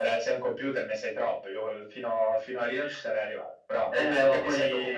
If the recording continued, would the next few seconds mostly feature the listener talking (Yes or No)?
Yes